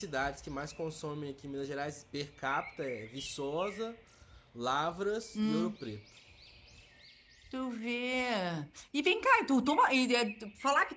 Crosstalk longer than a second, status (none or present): none